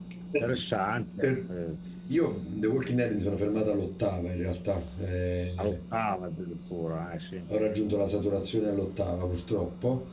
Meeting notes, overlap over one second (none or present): none